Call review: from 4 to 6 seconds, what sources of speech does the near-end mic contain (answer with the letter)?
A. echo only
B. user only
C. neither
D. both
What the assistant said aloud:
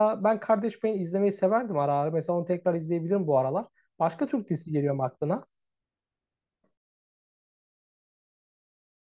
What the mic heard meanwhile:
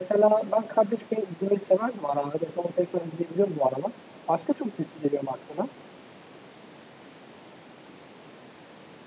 A